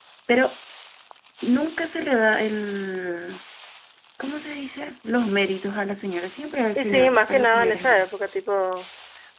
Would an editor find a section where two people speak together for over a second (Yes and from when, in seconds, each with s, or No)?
Yes, from 6.8 s